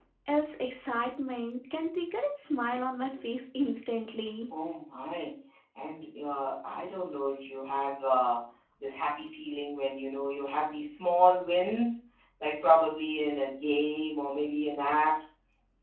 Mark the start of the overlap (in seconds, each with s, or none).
none